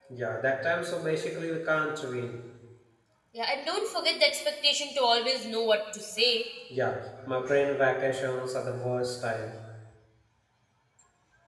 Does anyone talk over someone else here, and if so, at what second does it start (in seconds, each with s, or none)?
none